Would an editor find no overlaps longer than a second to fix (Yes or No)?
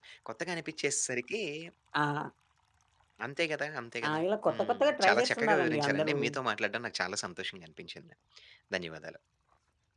No